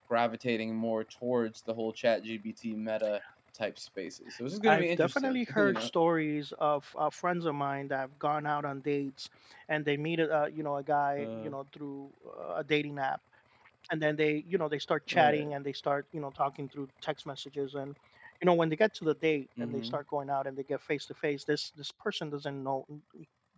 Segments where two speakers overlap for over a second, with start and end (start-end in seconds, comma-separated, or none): 4.7-5.9